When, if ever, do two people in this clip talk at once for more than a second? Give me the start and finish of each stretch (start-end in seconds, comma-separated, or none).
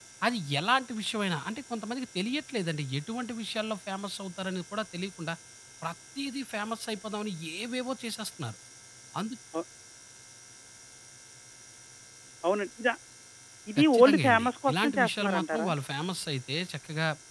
13.8-15.7